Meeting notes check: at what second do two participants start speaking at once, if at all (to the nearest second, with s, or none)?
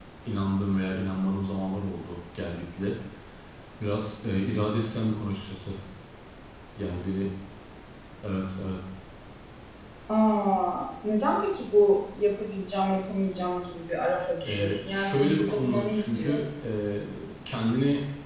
14 s